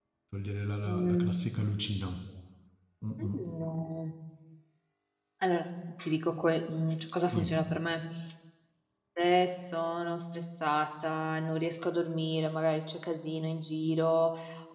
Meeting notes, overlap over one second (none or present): none